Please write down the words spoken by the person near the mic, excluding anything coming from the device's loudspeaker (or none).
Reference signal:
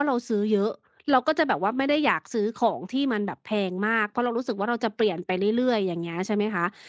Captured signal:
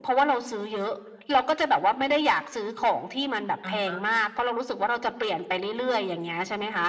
อะฮะ